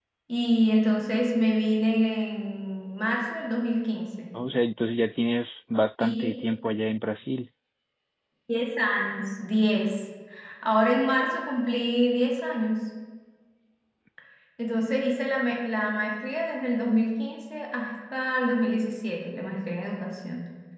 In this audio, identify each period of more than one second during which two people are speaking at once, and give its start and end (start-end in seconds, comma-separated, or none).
none